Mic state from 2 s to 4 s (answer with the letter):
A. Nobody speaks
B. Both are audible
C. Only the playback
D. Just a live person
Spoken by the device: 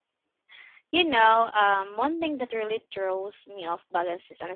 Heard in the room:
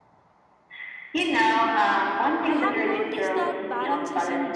B